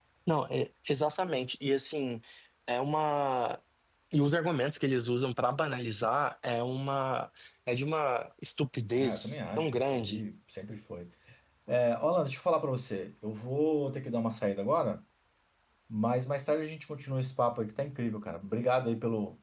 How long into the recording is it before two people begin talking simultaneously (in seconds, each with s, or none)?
8.9 s